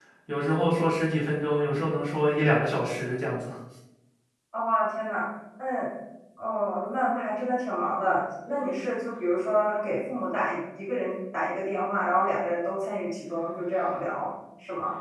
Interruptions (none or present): none